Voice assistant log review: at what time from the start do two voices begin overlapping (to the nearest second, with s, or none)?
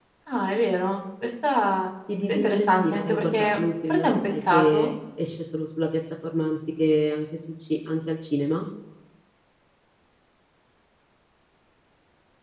2 s